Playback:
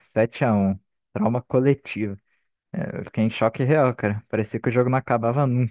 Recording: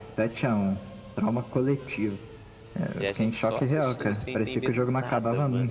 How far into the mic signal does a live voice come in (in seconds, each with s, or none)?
3.0 s